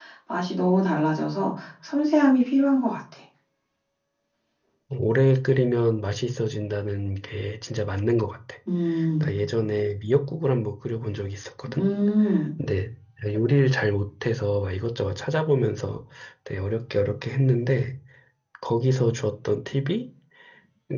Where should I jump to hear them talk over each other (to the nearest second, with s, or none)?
none